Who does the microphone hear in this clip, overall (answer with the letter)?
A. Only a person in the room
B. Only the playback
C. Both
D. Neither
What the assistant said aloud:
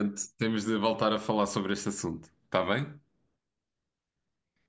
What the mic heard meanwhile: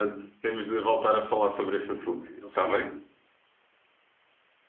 C